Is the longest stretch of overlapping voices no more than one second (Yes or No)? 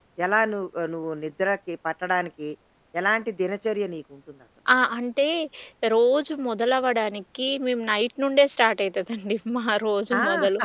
Yes